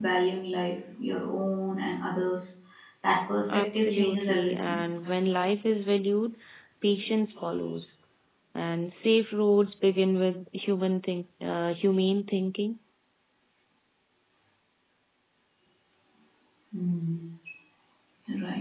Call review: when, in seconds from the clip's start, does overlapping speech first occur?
3.5 s

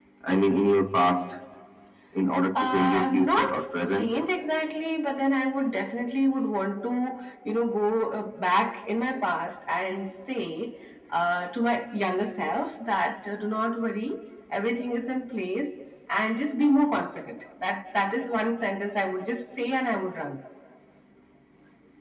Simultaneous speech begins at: 2.6 s

